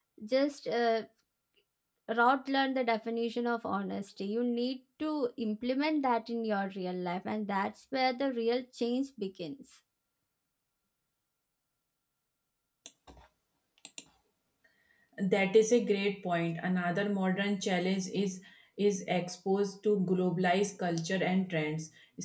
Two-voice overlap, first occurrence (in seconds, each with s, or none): none